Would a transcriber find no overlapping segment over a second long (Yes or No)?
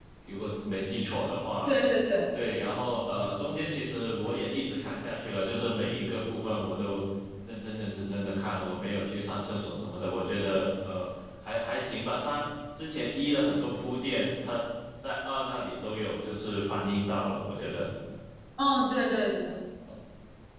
Yes